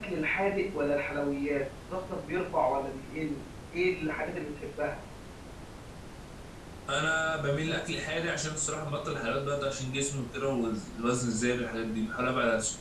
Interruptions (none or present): none